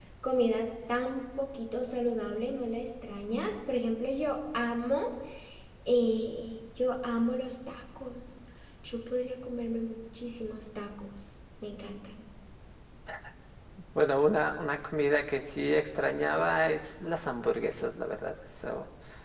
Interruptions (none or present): none